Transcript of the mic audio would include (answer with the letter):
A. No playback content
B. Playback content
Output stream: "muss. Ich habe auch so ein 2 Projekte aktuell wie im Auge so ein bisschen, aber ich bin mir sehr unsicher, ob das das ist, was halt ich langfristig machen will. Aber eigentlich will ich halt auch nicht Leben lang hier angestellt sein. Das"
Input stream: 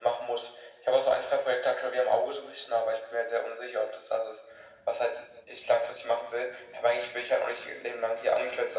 B